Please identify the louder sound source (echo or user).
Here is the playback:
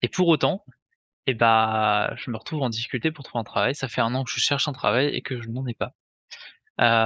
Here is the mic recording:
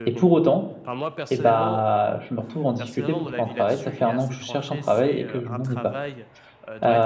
echo